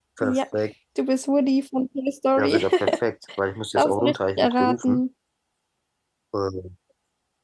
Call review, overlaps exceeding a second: present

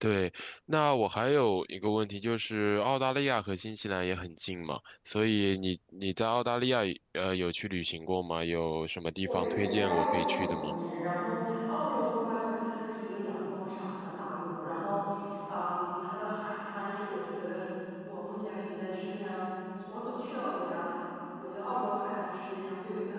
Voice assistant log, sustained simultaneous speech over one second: present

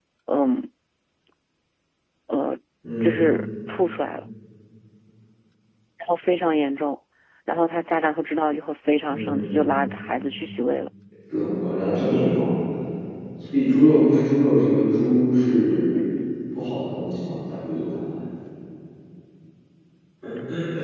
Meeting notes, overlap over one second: none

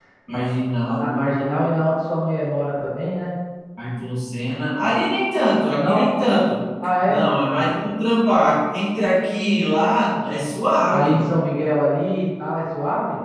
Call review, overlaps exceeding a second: none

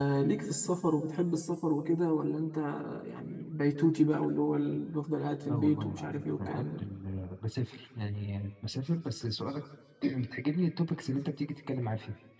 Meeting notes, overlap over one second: present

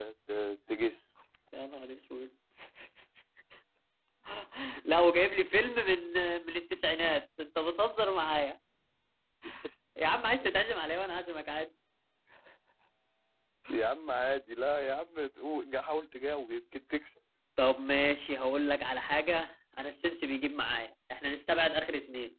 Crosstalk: none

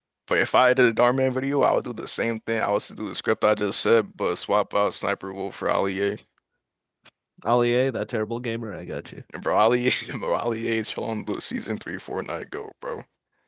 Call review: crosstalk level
none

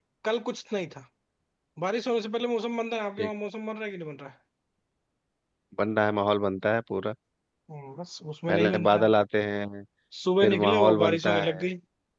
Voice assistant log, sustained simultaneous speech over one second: present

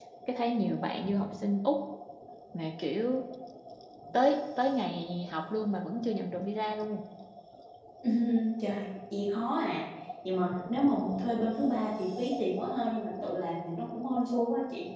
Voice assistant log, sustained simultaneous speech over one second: none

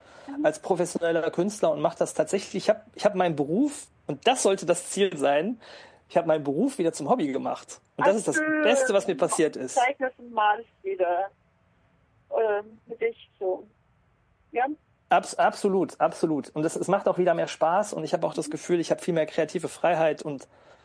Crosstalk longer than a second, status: present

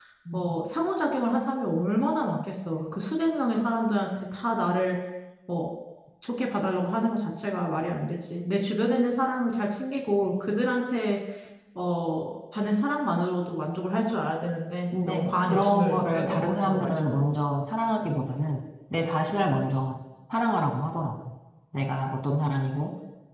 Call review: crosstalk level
present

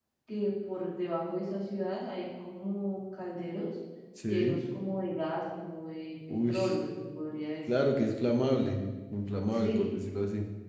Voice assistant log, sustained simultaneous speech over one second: none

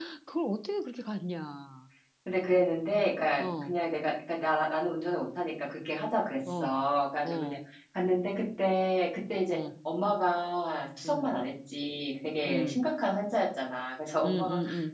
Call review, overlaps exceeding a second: none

